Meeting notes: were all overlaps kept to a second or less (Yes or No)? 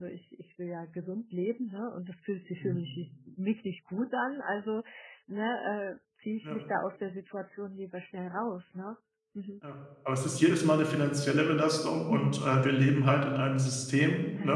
Yes